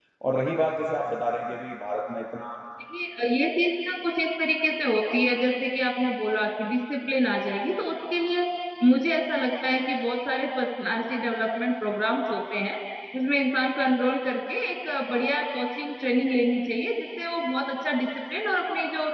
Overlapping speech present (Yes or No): No